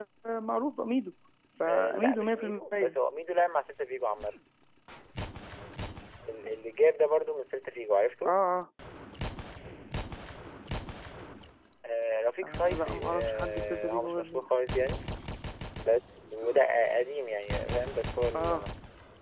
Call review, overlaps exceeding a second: present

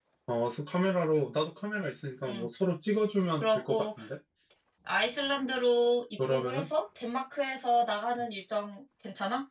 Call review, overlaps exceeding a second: none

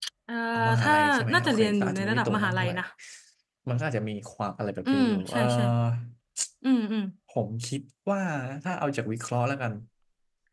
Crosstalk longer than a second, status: present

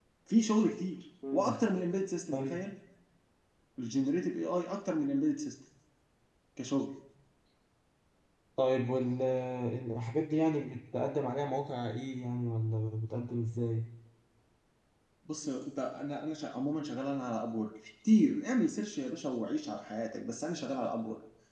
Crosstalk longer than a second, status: none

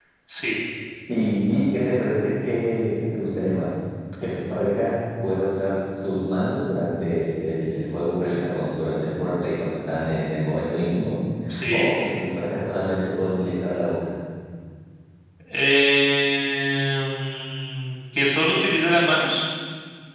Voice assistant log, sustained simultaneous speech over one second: none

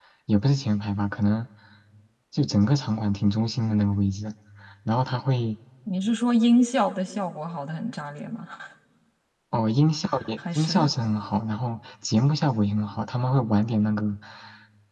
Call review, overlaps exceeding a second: none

